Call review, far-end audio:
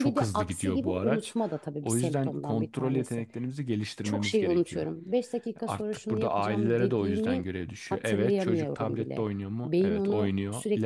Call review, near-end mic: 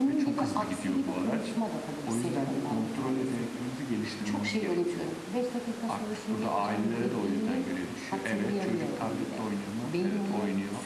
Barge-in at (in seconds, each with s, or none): none